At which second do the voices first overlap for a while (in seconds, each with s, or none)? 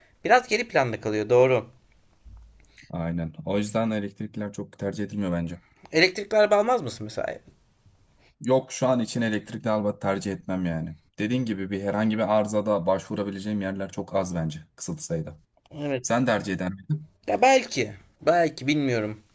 none